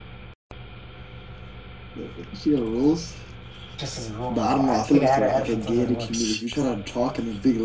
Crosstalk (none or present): present